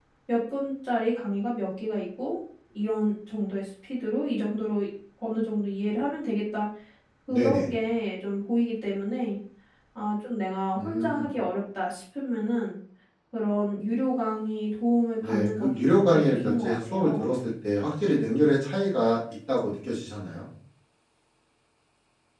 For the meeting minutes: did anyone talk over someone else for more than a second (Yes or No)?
Yes